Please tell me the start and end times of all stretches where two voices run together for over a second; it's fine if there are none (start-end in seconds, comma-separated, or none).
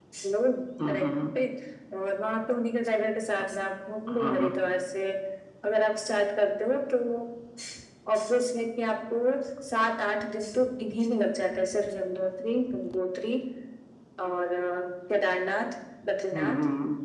none